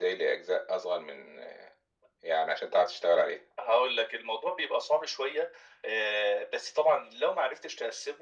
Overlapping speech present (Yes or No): No